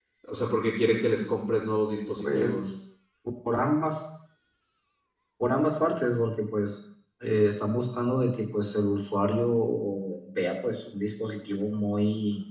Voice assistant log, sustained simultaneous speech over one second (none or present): none